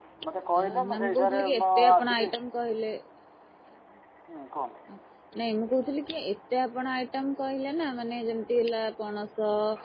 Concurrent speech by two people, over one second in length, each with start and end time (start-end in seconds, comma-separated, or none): 0.6-2.4